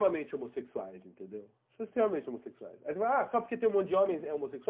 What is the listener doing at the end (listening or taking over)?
listening